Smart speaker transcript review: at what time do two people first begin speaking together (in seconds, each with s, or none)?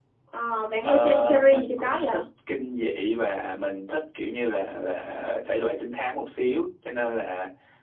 0.8 s